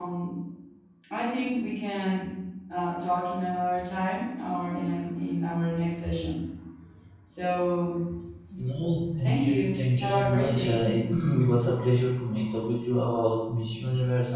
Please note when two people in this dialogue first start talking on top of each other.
9 s

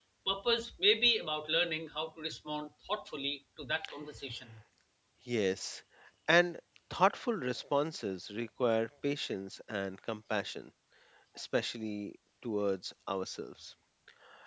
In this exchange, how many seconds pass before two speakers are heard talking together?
none

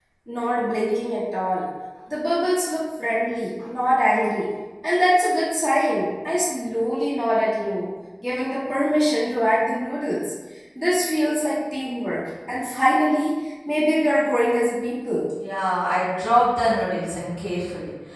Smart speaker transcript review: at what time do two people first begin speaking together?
none

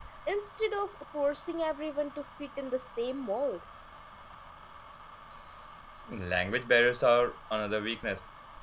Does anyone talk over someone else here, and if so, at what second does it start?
none

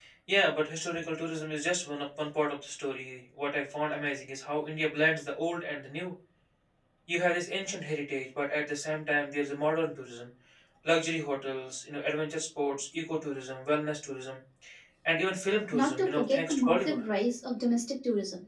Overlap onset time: 16 s

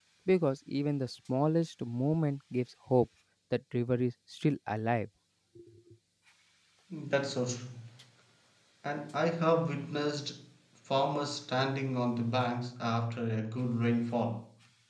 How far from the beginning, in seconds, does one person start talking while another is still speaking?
none

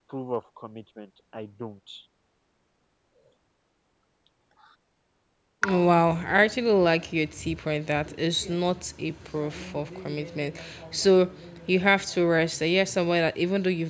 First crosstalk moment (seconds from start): none

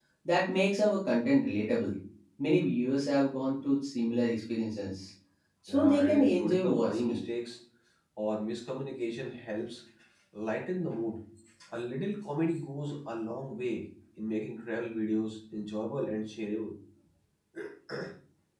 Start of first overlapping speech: 6 s

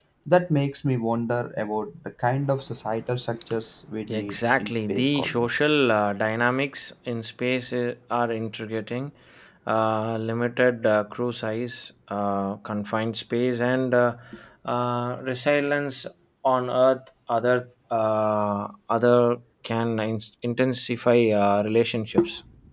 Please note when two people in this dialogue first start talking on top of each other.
4 s

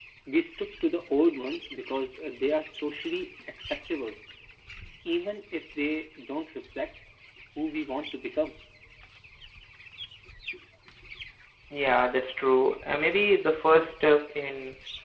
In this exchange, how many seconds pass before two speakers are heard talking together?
none

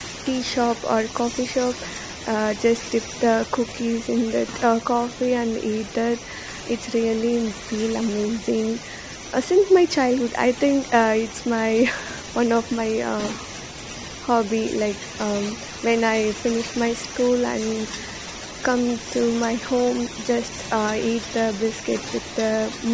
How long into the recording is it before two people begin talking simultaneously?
none

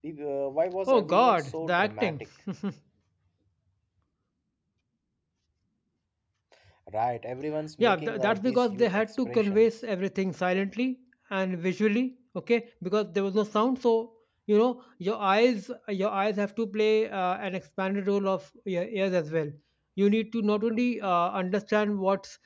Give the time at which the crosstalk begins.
1 s

